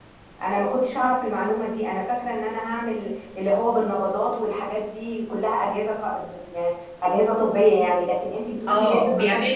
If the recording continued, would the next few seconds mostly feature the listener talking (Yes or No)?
Yes